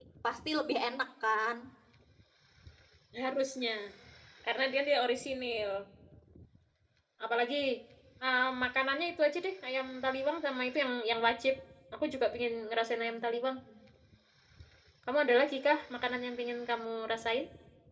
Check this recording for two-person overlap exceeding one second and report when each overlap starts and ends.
none

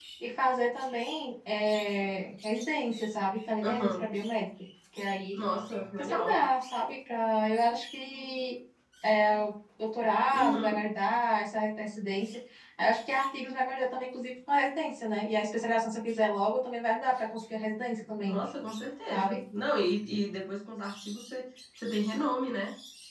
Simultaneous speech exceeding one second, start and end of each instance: none

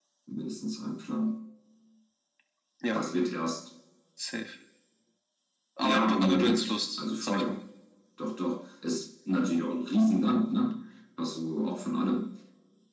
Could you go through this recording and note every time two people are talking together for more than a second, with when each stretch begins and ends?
5.8-7.6

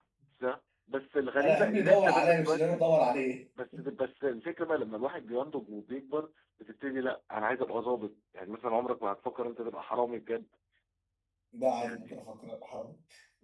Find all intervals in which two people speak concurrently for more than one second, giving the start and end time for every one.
1.4-2.8

